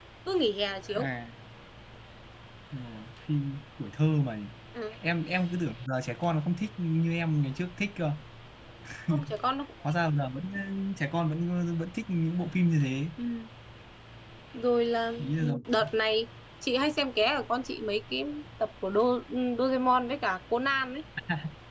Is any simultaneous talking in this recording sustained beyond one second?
No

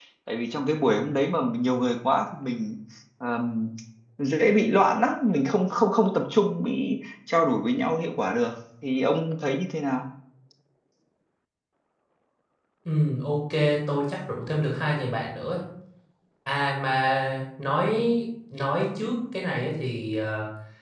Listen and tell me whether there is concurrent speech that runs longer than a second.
No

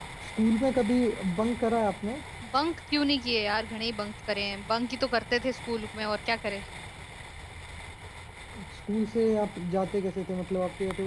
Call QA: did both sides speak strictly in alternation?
Yes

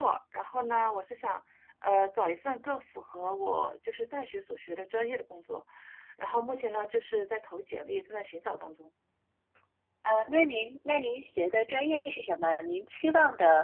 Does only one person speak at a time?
Yes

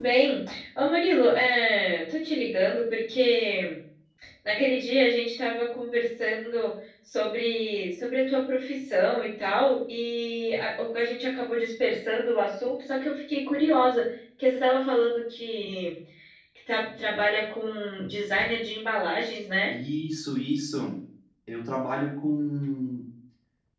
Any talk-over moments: No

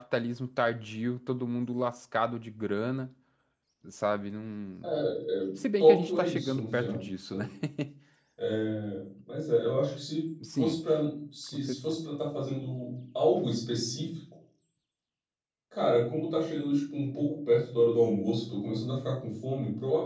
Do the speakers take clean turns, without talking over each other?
No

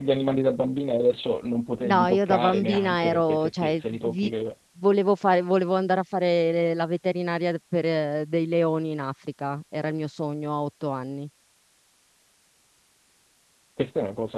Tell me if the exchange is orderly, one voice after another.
No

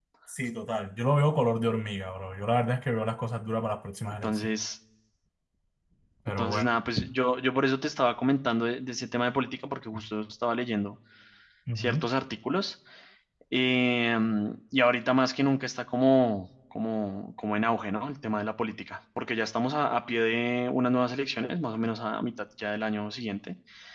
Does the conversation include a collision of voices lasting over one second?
No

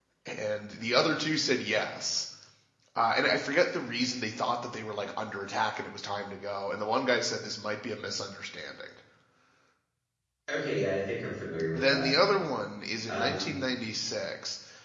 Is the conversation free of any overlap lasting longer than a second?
Yes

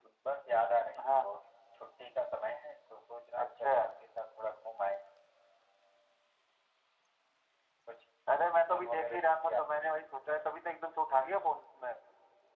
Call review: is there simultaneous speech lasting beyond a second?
Yes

